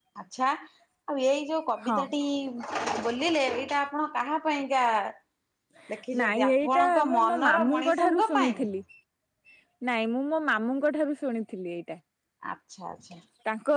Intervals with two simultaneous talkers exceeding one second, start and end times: 6.2-8.6

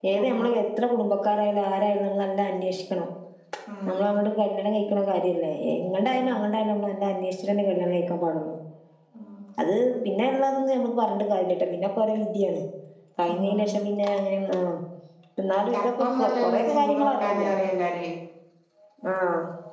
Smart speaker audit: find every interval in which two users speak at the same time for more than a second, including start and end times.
15.7-17.5

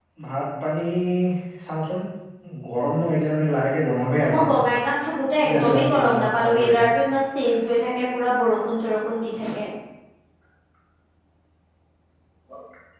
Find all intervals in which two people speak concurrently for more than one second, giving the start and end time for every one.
5.4-6.8

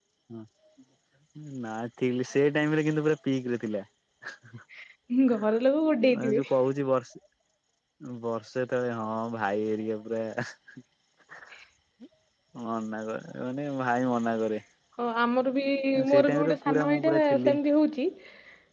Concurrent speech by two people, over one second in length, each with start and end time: 16.1-17.5

